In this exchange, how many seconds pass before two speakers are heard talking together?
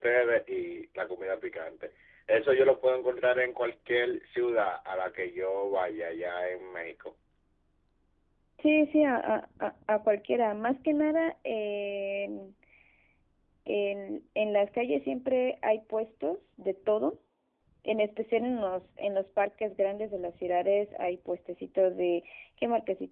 none

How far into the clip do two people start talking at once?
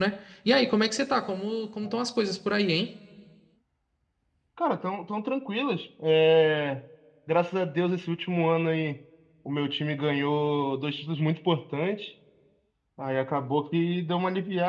none

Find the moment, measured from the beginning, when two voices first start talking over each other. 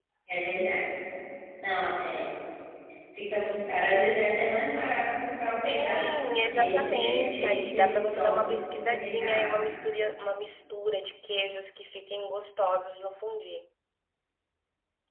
5 s

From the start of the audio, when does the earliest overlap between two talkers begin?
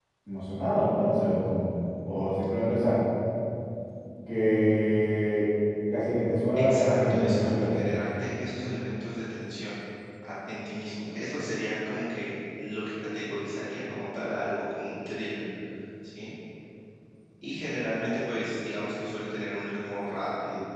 7 s

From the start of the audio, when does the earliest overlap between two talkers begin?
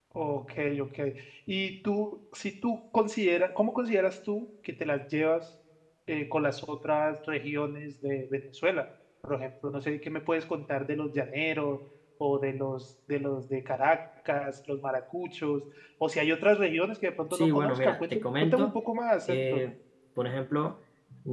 17 s

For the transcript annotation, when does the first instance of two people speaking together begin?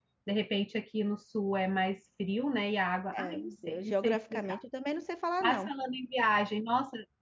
3 s

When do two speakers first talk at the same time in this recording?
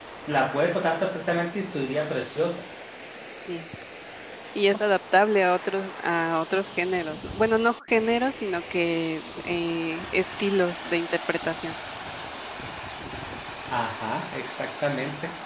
none

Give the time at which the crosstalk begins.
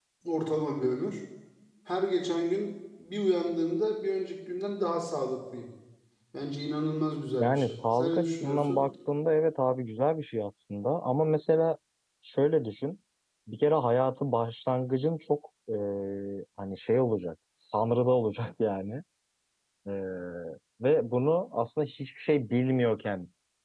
7 s

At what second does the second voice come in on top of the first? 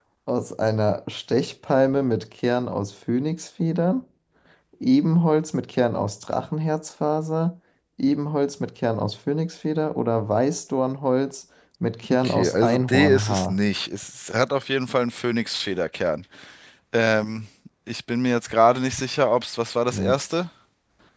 12 s

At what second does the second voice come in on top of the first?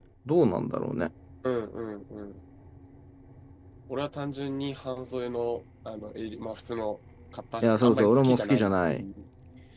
8 s

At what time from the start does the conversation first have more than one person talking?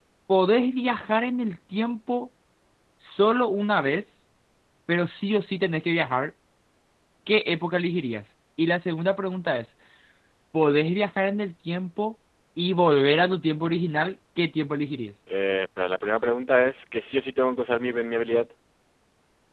none

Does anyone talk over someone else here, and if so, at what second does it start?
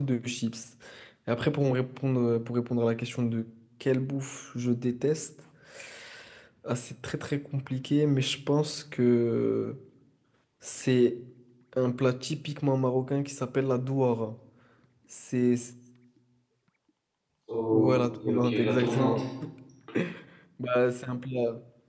18 s

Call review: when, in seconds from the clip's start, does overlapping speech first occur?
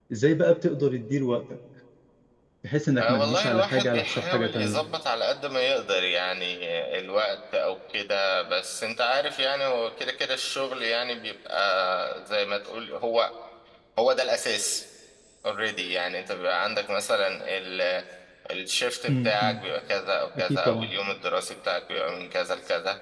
3 s

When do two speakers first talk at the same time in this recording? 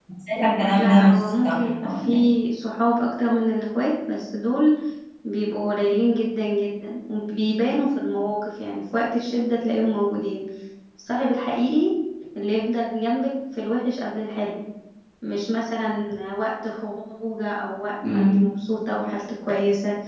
1 s

